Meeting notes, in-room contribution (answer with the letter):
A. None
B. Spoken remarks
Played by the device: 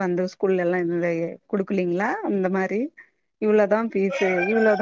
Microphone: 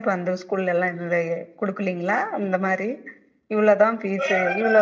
A